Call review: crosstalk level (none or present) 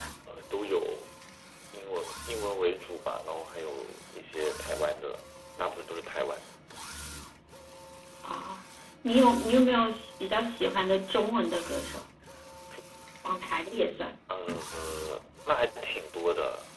none